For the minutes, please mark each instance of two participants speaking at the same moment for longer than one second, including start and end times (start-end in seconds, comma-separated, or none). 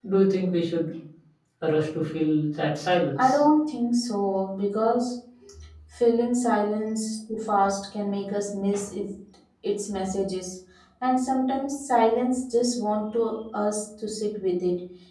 none